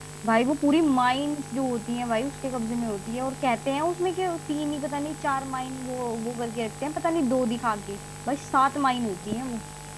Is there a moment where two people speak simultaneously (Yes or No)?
No